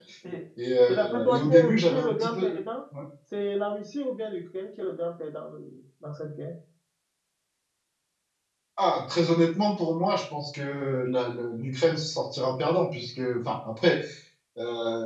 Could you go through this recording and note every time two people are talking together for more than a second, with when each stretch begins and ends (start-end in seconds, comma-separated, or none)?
0.8-2.6